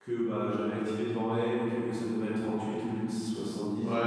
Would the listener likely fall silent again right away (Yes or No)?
No